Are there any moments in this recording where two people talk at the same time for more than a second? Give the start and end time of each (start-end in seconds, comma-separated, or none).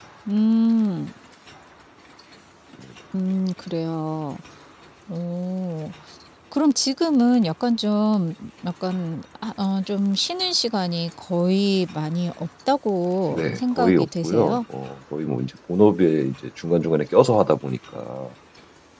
13.3-14.6